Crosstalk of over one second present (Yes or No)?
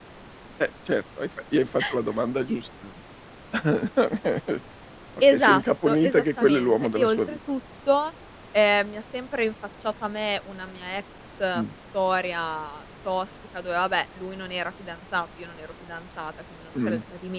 Yes